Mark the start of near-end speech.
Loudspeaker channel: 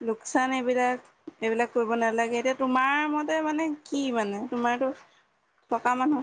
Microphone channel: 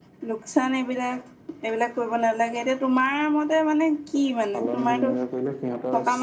5 s

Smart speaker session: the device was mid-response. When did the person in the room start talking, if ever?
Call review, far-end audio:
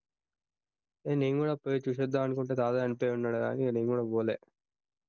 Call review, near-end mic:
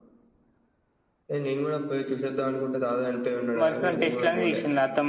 4 s

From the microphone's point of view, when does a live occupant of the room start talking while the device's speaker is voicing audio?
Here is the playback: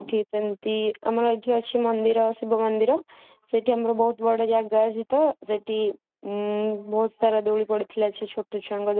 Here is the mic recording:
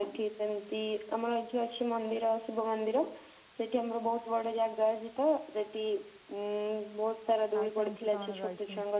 8 s

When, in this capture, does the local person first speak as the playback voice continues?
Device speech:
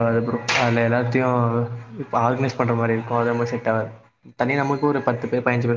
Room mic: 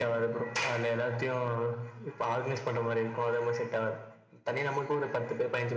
none

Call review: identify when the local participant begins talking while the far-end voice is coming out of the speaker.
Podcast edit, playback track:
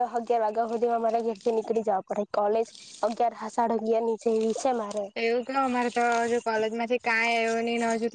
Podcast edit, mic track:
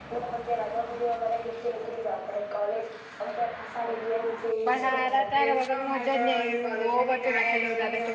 5 s

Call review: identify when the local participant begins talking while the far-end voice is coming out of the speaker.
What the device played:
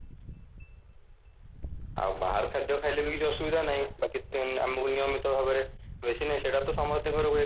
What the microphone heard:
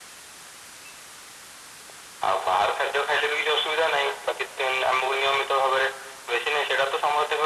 none

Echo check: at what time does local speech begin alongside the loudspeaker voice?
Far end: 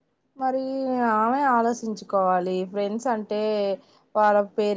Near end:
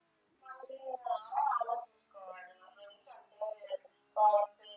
none

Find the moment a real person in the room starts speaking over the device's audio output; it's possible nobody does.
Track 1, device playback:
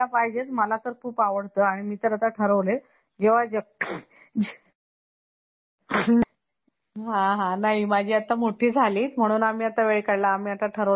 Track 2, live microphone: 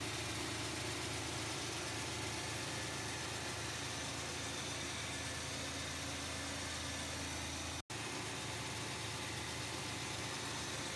none

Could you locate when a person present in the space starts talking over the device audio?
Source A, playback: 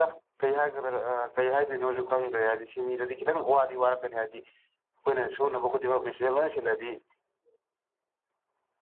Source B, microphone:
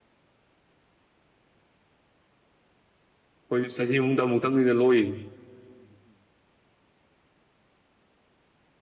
4 s

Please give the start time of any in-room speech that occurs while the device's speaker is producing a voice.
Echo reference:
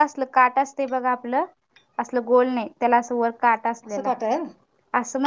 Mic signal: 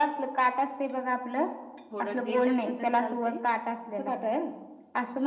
2 s

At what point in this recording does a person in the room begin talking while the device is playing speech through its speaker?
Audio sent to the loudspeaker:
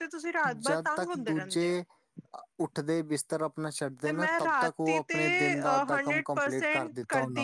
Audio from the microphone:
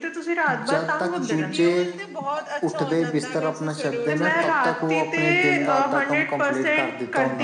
1 s

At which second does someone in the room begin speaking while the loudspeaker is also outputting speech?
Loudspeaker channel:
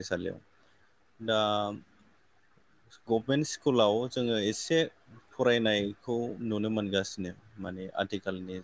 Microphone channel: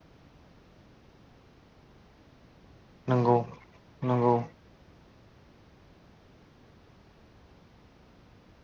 3 s

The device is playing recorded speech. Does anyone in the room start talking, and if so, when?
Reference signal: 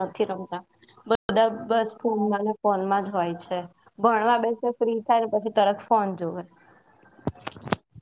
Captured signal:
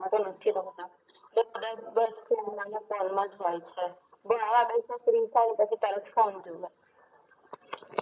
none

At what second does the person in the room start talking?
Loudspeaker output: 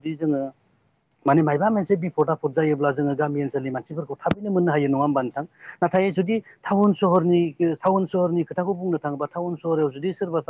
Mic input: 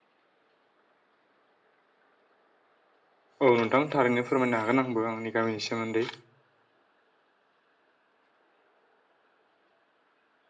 3 s

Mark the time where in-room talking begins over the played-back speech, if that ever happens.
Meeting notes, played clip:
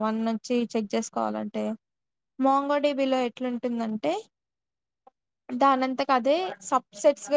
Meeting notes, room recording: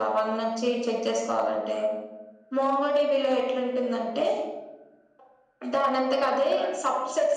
none

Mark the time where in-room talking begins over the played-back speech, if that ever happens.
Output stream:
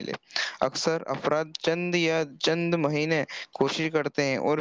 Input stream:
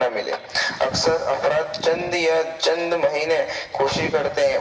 none

